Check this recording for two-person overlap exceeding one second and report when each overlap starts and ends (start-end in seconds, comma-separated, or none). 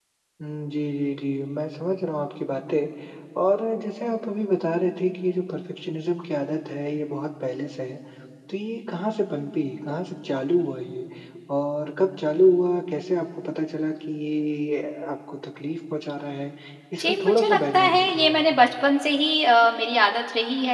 17.0-18.6